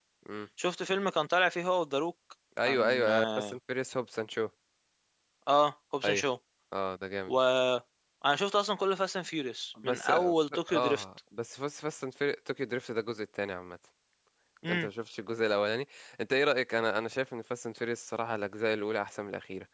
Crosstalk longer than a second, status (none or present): present